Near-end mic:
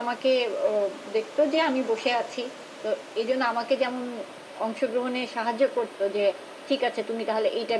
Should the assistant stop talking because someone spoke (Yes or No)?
No